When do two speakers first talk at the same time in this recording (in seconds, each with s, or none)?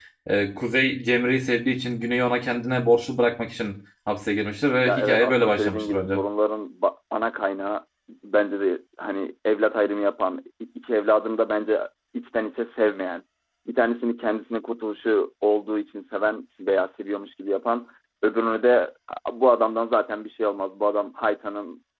4.8 s